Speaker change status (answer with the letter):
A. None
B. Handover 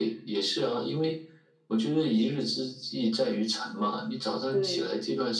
A